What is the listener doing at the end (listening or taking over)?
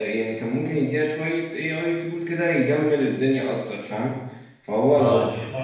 taking over